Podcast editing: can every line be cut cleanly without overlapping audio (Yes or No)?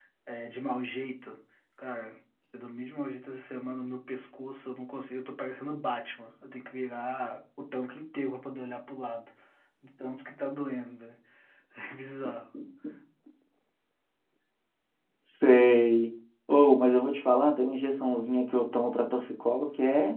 Yes